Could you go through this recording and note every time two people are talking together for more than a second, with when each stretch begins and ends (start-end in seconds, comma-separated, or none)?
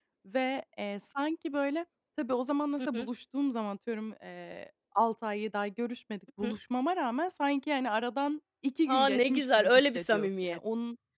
8.9-10.6